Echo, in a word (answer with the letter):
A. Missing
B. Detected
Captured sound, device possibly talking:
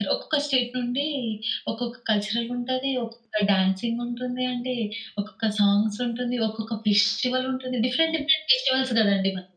A